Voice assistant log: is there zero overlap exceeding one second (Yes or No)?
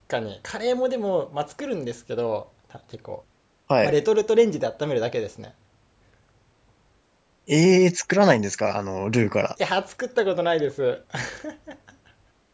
Yes